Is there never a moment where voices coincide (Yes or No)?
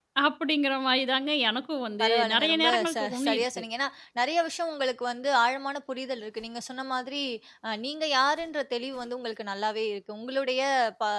No